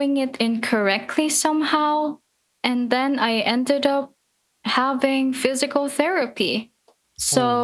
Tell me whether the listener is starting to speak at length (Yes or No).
No